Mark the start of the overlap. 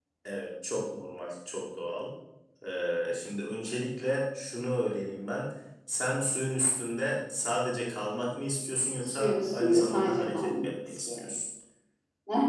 9 s

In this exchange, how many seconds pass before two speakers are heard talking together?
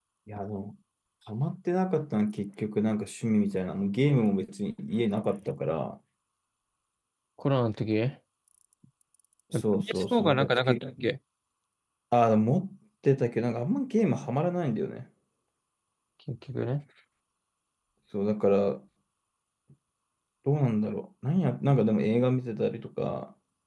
10 s

